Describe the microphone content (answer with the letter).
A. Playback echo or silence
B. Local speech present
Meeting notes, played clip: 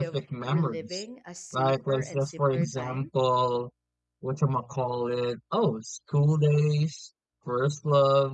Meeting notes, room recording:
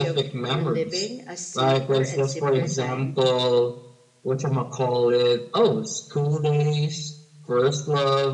A